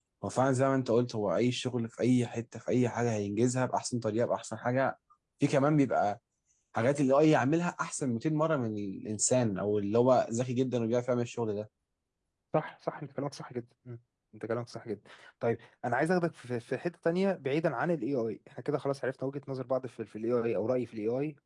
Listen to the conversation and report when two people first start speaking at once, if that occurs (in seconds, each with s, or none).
none